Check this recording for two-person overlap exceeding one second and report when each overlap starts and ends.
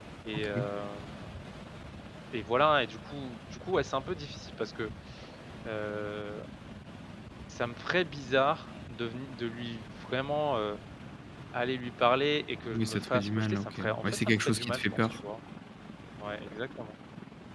12.7-15.2

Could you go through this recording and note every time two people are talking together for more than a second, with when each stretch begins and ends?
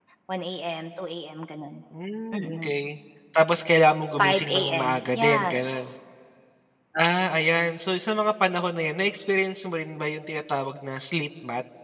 4.2-5.9

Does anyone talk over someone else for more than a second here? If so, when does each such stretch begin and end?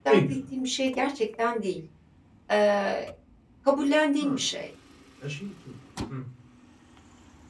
none

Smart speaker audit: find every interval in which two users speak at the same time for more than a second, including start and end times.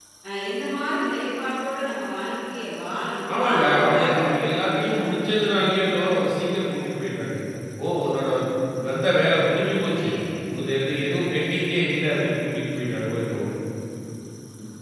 3.3-5.4

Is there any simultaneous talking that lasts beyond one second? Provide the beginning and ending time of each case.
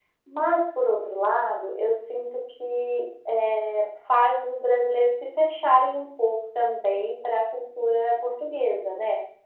none

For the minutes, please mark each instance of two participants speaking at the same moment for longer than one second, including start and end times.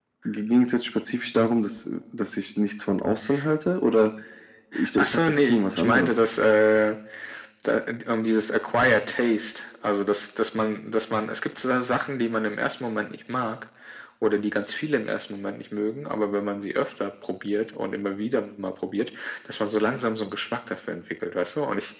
5.0-6.2

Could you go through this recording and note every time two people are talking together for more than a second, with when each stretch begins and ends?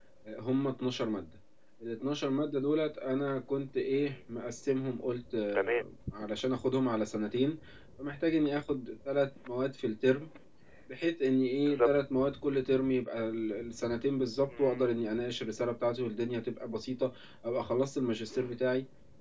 none

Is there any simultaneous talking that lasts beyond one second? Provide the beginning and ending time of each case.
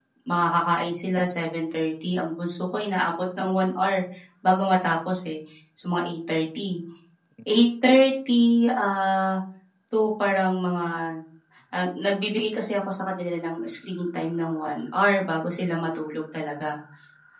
none

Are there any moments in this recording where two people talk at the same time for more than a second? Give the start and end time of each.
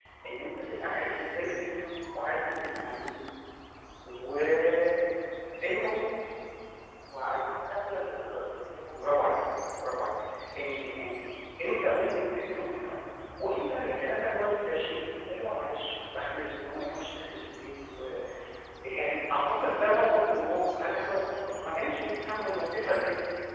none

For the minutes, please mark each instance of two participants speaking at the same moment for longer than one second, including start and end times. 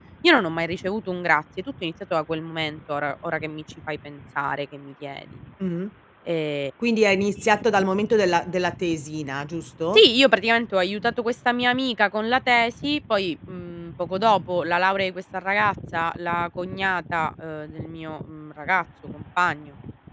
none

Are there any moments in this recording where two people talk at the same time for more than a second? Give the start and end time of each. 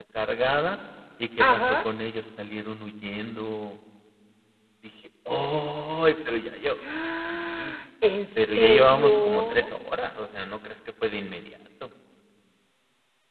8.4-9.6

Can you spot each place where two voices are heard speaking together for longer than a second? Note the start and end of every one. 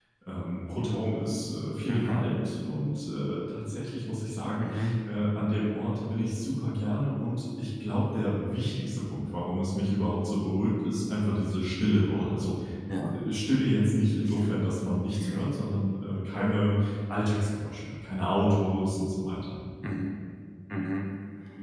none

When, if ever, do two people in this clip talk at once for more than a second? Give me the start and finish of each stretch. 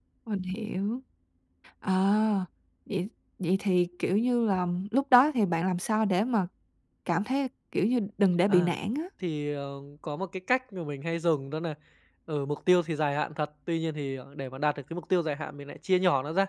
none

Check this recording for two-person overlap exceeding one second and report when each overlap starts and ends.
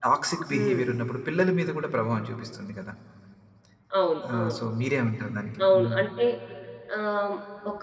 none

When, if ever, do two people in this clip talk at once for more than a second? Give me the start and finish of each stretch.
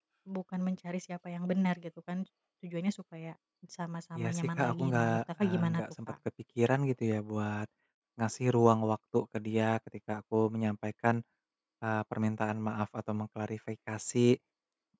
4.2-6.1

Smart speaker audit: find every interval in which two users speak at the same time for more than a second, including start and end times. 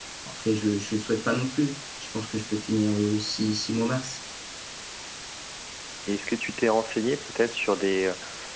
none

